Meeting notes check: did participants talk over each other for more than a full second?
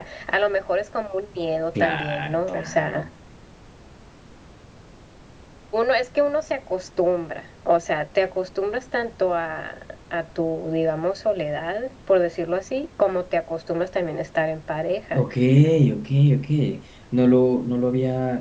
Yes, from 1.8 s

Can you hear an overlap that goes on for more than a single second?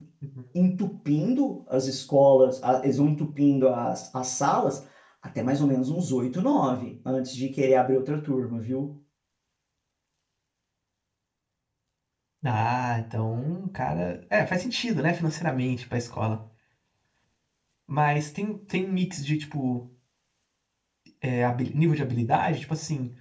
No

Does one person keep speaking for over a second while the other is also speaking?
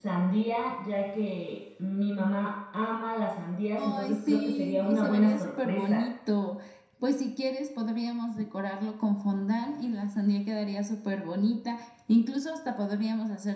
Yes, from 3.8 s

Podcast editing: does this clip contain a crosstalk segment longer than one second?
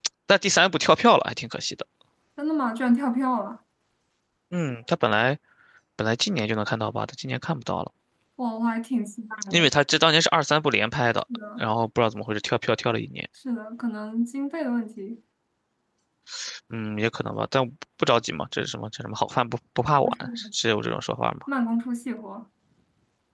No

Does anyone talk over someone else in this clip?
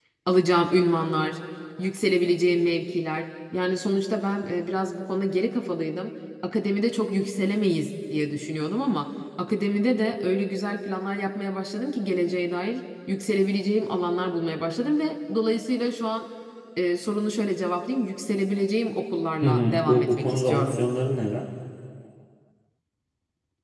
Yes, from 19.4 s

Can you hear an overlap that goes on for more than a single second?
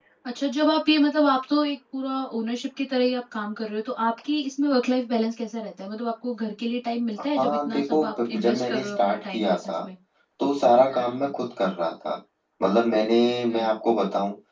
Yes, from 7.4 s

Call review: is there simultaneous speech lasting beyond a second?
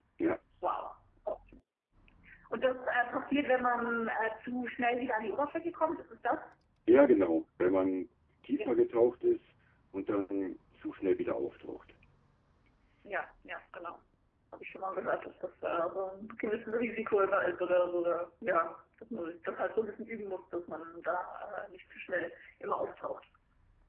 No

